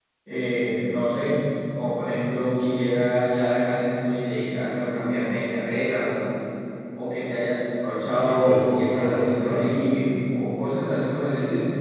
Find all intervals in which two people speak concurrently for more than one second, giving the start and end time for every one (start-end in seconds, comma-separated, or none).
8.2-9.6